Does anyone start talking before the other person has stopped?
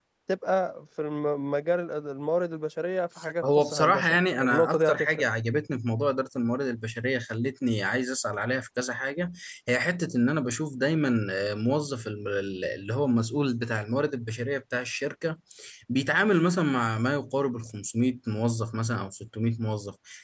Yes, from 3.4 s

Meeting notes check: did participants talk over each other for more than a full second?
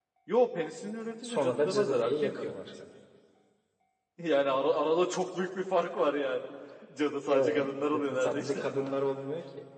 Yes, from 1.2 s

